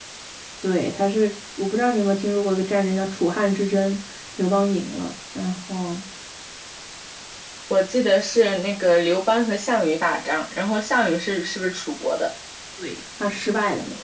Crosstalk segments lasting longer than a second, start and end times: none

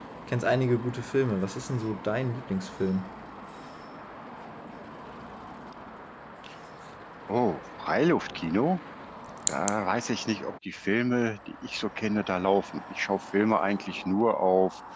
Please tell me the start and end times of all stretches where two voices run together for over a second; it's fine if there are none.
none

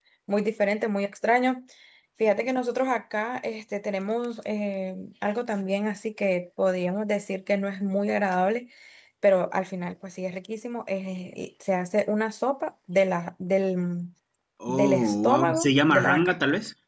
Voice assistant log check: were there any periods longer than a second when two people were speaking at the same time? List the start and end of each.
14.7-16.4

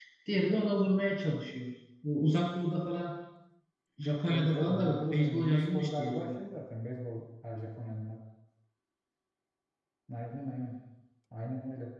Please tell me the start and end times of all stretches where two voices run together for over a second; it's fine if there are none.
4.2-6.4

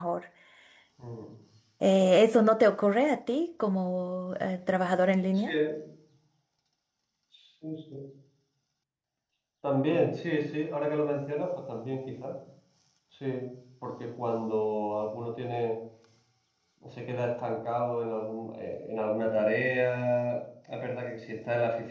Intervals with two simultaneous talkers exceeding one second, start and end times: none

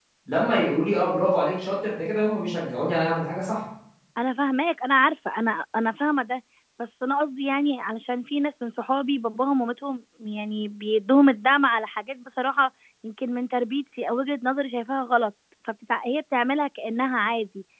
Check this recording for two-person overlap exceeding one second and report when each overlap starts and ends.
none

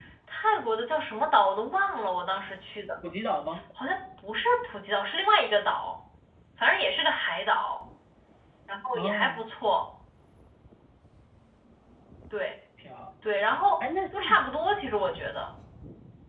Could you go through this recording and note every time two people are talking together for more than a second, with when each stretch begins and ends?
none

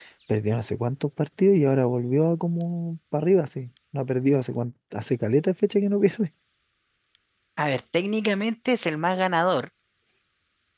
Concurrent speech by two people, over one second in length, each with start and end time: none

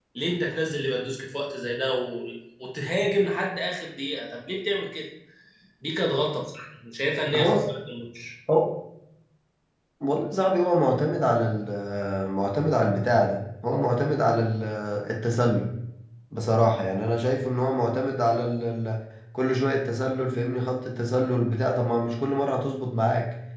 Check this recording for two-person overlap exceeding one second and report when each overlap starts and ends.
none

